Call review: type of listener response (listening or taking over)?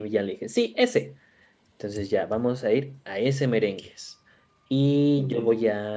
listening